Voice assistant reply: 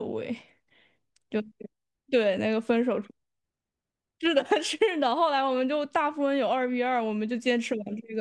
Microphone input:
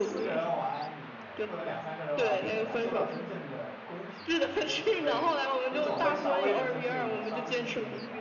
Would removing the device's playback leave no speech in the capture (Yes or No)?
No